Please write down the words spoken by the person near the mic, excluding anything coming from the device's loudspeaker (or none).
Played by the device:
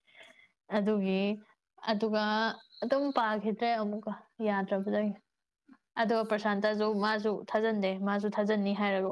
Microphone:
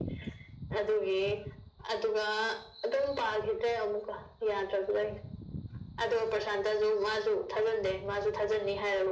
none